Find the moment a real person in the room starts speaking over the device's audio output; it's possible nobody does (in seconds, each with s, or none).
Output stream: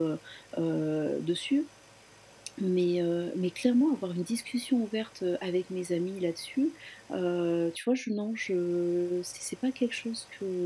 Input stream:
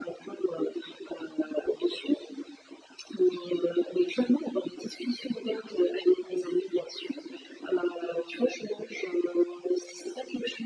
none